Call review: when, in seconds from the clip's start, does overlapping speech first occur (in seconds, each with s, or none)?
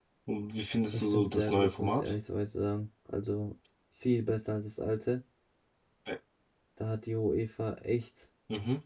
0.9 s